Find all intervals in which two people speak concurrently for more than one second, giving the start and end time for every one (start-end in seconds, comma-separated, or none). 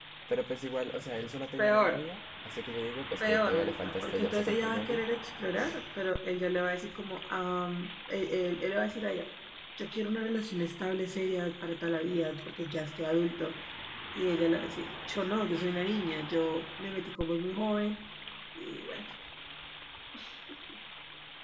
3.2-5.0